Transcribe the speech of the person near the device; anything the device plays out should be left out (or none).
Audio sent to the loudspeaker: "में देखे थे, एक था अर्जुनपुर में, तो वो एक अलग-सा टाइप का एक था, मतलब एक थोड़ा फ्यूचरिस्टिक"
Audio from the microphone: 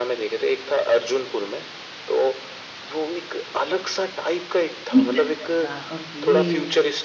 निकल जाएगा, ओके।